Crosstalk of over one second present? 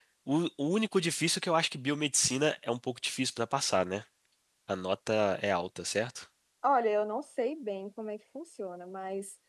No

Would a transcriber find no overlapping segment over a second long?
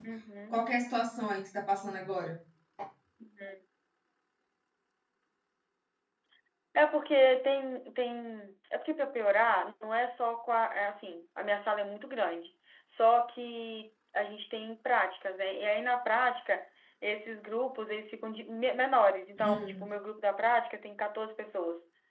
Yes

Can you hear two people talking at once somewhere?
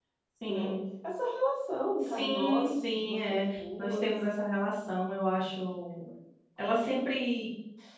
Yes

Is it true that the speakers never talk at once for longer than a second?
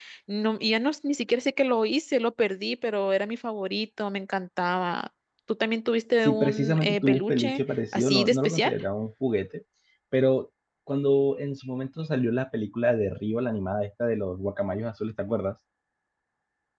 No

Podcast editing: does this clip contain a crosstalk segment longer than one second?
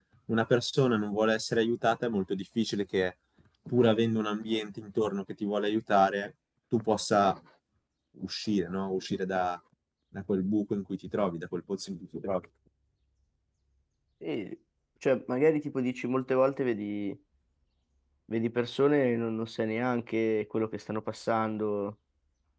No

